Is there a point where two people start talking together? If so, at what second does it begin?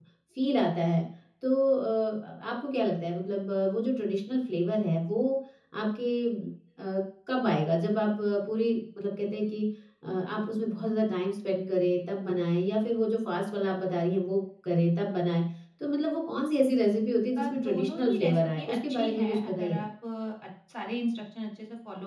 17.4 s

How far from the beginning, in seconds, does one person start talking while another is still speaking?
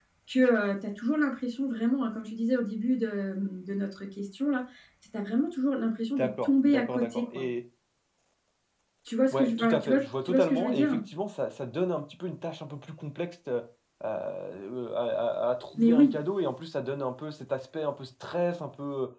6.2 s

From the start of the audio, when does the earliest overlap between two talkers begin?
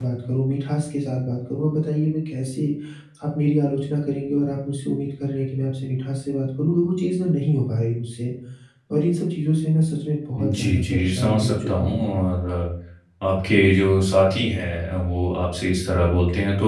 10.4 s

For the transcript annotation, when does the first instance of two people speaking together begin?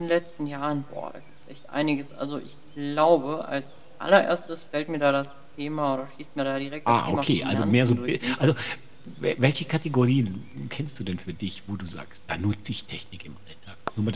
6.9 s

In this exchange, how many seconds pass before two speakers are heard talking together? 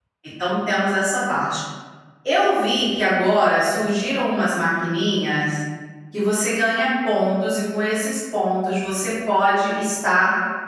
none

